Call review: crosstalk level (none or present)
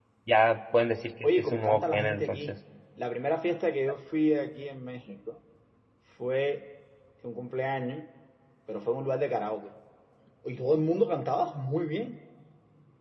present